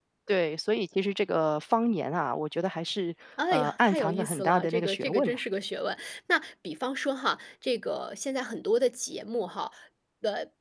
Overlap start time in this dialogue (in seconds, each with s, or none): 3.4 s